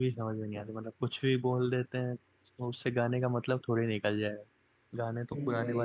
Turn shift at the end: No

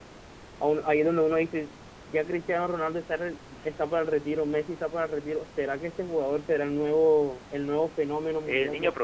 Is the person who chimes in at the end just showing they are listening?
No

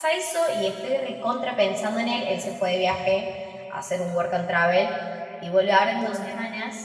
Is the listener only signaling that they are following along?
Yes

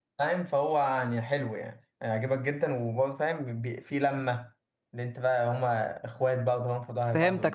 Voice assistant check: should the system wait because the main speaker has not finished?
No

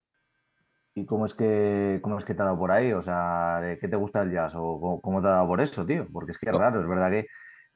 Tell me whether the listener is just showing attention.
Yes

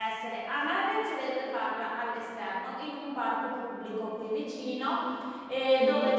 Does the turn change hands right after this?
No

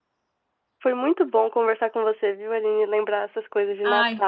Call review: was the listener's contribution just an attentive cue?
Yes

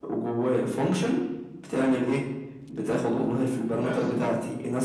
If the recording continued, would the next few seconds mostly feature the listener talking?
No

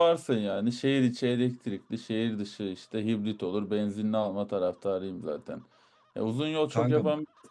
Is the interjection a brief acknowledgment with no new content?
Yes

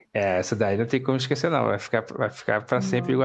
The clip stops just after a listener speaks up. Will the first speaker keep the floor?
Yes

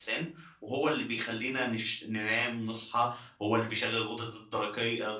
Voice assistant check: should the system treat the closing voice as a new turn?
No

